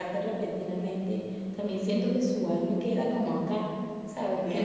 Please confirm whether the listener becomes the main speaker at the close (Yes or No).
Yes